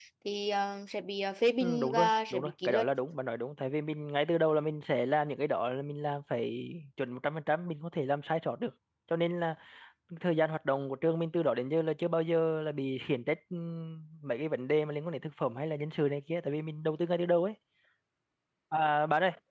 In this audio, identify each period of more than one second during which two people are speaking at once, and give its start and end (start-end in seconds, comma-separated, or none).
1.6-2.9